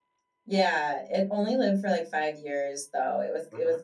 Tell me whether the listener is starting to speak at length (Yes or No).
No